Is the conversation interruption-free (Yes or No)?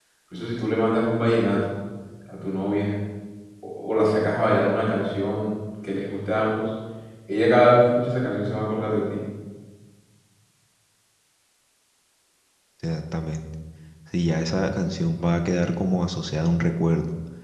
Yes